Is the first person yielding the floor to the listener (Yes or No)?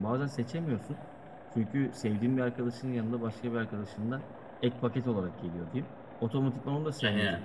No